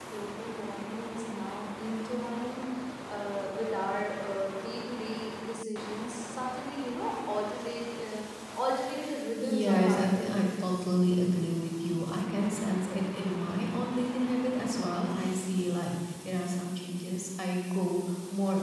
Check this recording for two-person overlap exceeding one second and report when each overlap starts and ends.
9.4-10.9

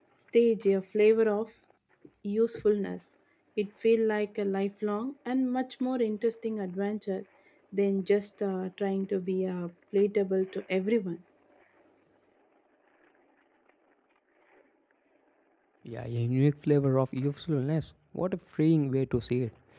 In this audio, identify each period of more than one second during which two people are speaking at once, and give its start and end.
none

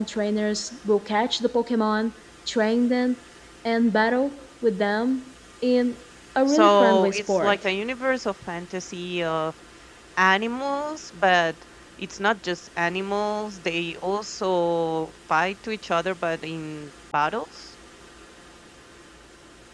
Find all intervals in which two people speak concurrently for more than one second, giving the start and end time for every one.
6.5-7.7

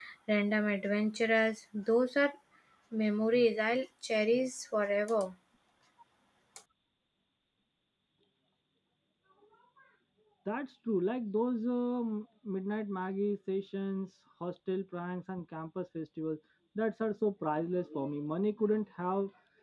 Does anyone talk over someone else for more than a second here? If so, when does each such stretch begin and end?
none

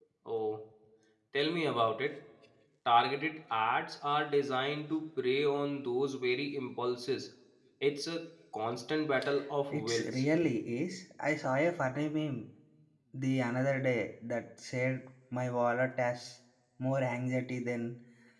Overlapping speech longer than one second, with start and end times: none

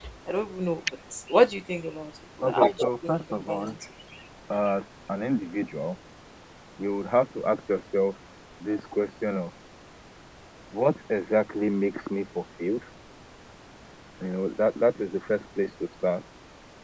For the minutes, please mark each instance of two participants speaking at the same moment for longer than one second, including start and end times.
2.4-3.8

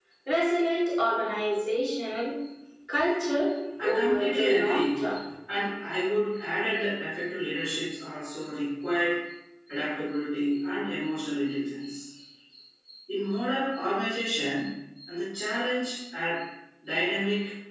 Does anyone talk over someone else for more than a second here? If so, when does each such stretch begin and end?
3.8-5.0

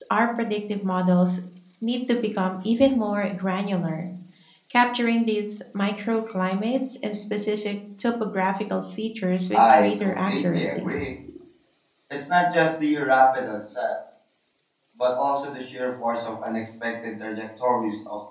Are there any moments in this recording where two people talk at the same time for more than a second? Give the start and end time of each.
9.5-10.8

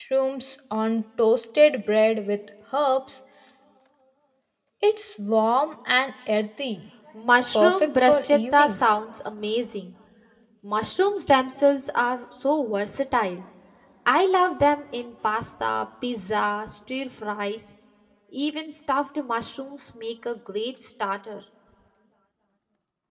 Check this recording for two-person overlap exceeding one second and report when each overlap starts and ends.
7.6-9.0

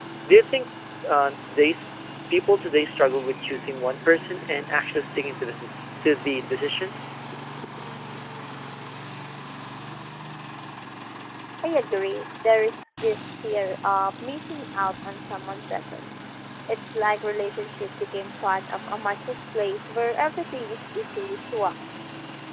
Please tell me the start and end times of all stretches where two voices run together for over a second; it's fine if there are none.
none

